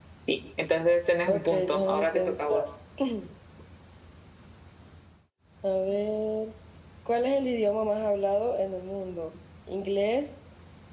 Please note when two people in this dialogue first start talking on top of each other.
1.3 s

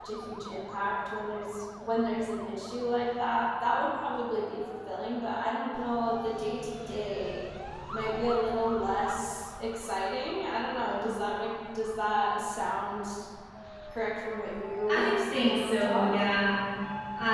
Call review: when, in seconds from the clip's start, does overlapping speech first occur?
14.9 s

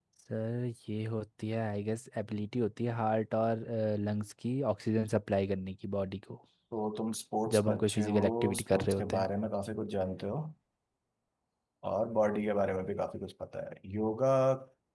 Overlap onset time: 7.5 s

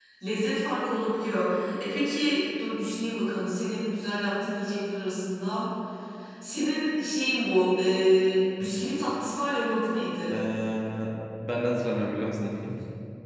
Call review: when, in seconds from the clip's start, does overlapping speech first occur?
none

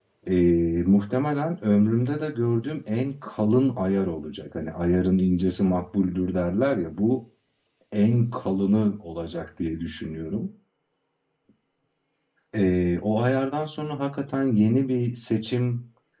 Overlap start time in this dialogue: none

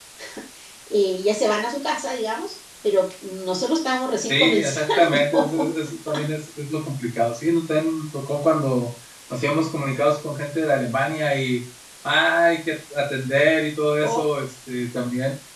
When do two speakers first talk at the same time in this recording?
4.3 s

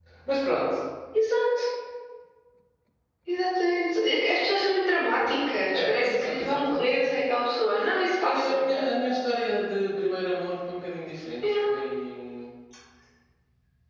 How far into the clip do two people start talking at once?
5.7 s

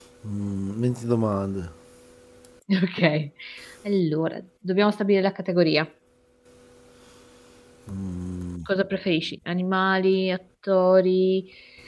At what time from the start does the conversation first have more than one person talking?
none

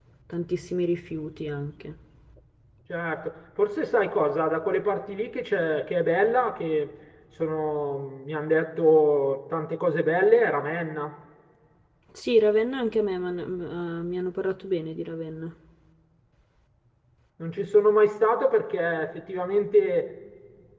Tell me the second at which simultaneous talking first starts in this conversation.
none

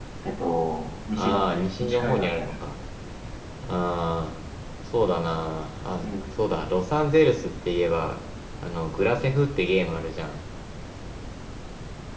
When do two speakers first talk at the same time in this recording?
1.1 s

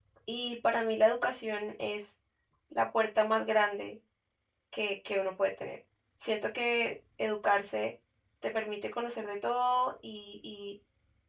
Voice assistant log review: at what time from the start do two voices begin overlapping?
none

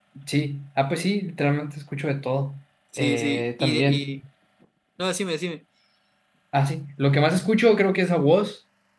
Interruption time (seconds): 2.9 s

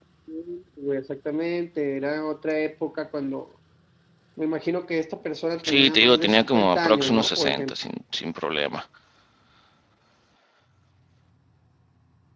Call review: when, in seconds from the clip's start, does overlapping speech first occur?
5.6 s

